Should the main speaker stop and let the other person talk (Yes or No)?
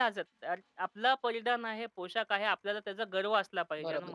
Yes